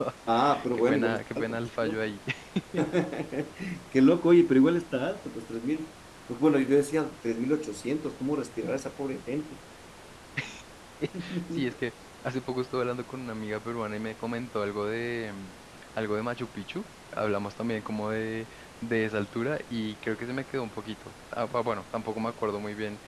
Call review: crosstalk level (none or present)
present